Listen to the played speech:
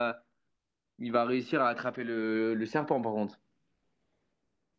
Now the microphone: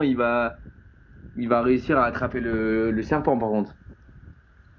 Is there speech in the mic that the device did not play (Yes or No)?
No